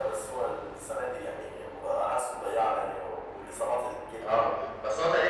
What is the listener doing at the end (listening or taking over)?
taking over